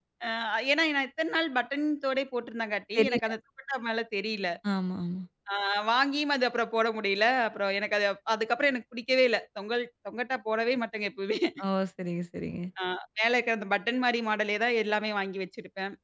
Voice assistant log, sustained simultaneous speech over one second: none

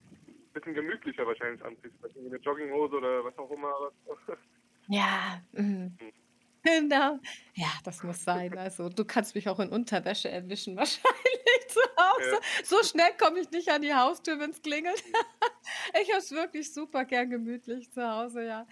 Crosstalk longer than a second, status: none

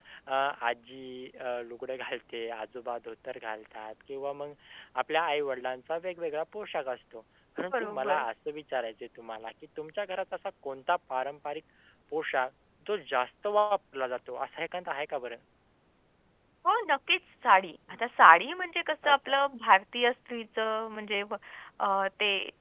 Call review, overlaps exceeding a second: none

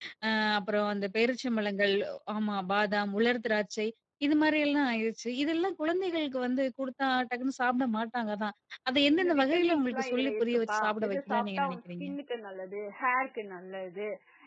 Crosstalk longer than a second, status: present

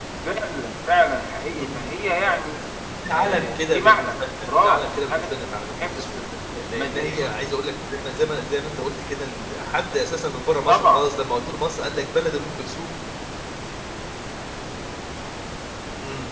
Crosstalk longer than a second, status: present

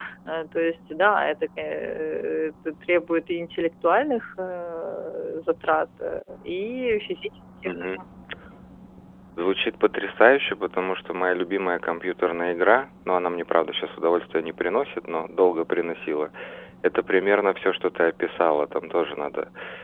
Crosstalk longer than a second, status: none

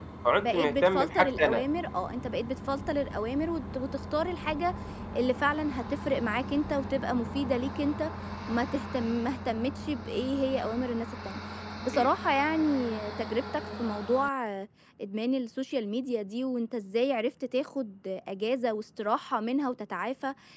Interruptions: present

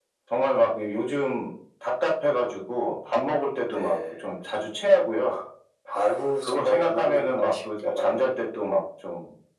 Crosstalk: present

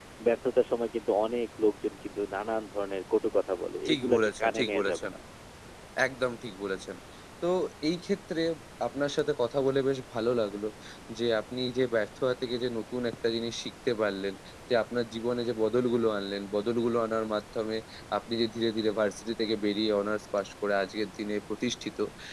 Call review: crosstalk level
present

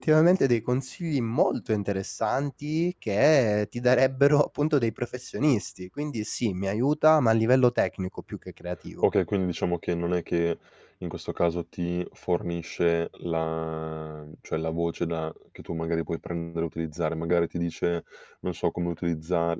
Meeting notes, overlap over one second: none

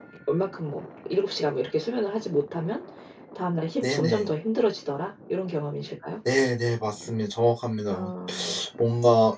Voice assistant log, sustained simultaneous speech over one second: none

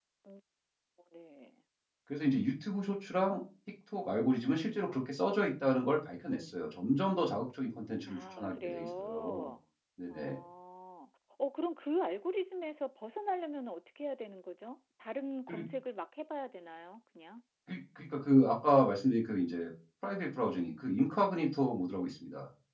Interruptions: present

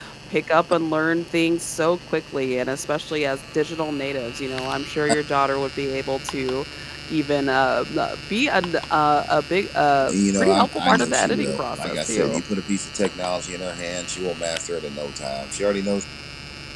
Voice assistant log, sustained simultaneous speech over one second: present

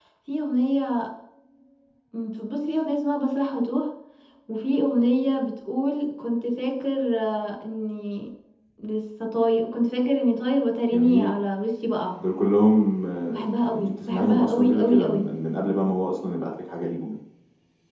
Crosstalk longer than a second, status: present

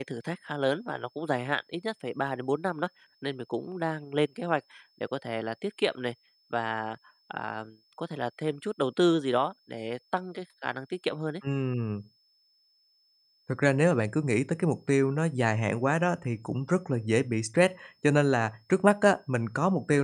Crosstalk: none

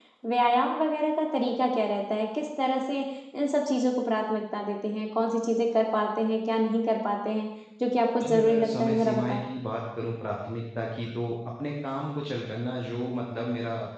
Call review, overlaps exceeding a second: present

